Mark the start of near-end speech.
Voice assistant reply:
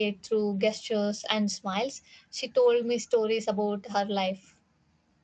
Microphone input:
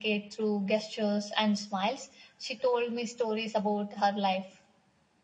none

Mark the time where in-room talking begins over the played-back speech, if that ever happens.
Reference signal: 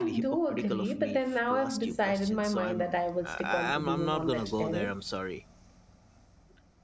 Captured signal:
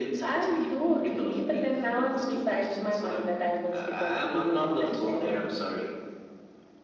none

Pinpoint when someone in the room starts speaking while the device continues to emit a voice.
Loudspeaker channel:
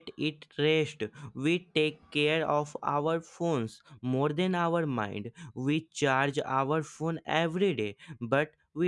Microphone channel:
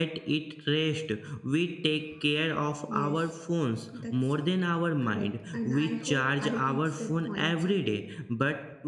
2.8 s

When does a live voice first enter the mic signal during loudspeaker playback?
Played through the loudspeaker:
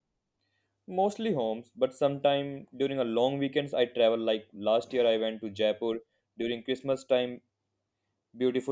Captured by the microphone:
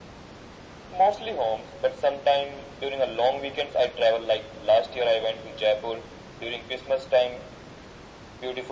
none

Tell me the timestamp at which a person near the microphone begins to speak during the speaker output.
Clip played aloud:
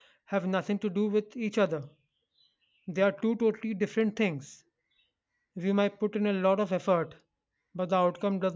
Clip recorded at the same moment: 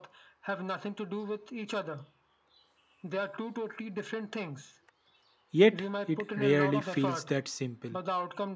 5.5 s

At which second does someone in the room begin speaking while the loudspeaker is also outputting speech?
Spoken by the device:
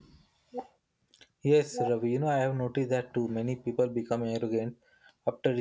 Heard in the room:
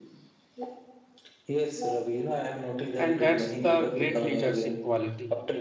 3.0 s

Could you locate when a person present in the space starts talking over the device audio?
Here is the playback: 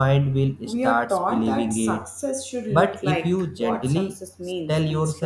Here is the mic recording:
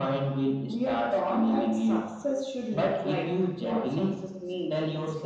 none

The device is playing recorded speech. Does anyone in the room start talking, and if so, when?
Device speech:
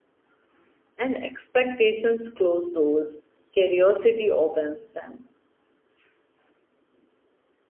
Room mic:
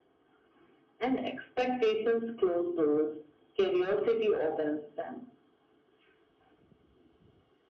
none

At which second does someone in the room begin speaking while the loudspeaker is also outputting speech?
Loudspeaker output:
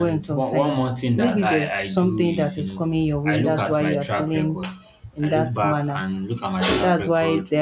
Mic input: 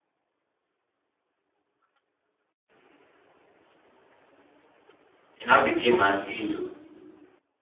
5.4 s

